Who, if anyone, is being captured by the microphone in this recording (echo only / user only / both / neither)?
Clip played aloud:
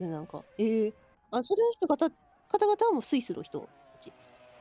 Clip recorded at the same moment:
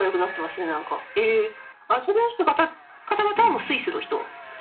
both